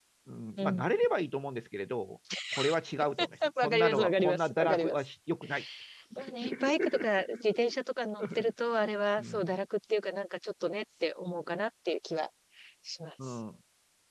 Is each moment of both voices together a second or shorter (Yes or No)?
No